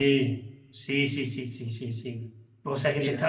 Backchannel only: Yes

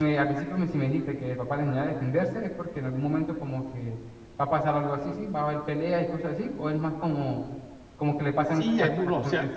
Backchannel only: No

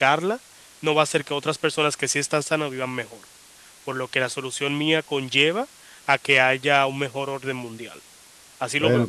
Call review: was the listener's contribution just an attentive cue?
No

